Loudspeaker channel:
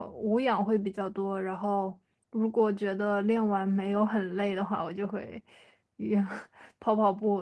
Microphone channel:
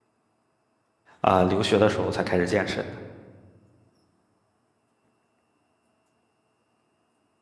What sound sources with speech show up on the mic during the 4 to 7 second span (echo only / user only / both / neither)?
neither